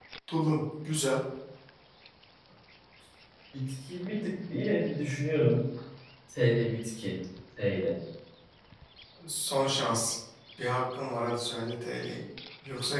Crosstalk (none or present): none